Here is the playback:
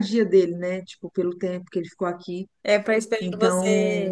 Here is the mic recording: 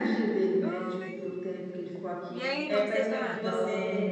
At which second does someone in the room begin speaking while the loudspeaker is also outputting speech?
0.6 s

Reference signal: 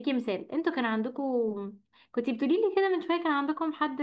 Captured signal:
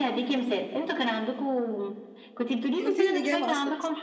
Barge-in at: 2.7 s

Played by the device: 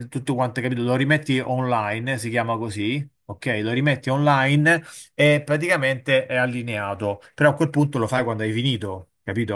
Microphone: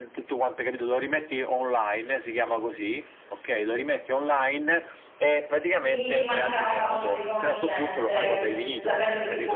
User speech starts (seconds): 5.8 s

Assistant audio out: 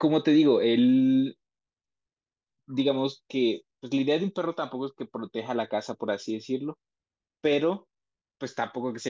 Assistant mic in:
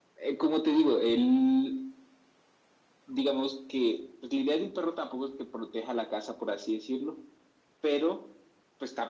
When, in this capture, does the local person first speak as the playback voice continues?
none

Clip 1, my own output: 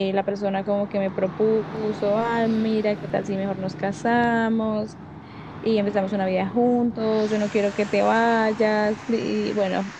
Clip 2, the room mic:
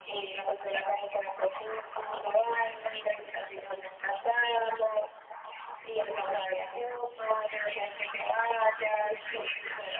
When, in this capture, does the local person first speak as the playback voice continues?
none

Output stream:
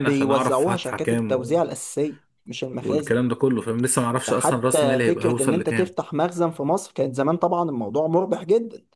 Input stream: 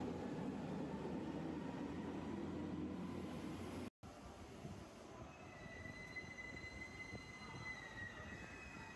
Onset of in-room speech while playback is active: none

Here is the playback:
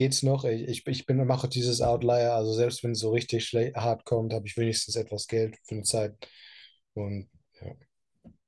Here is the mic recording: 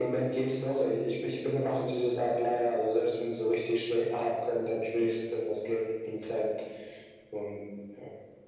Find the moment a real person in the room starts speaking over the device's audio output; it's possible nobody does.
none

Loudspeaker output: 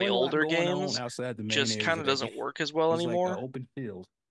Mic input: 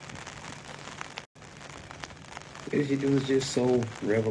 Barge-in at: 2.7 s

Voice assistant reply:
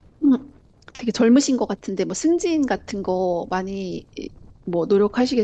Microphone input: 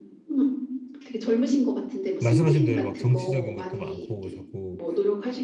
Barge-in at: 2.2 s

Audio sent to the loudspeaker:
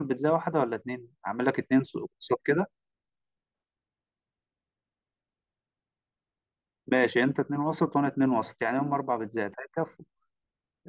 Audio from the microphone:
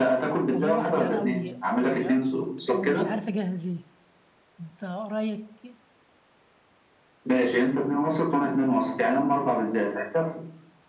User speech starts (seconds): 0.5 s

